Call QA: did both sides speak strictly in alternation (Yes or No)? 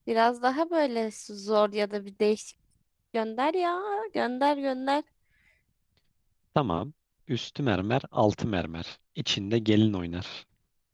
Yes